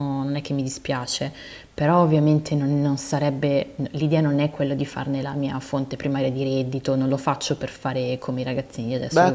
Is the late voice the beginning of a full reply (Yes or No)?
Yes